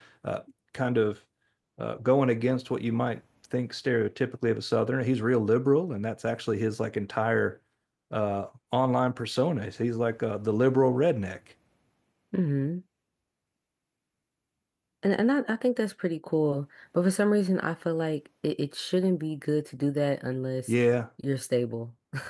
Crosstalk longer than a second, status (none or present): none